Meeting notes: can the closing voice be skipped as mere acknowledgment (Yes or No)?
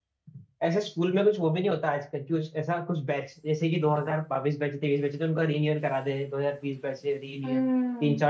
No